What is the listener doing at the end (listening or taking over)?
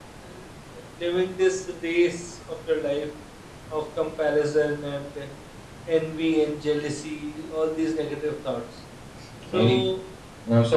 taking over